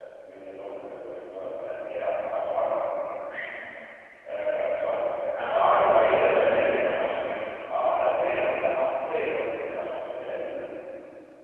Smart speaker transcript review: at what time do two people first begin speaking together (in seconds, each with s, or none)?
5.3 s